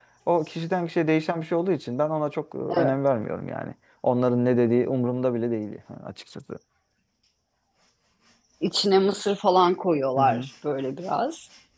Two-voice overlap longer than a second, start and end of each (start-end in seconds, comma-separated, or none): none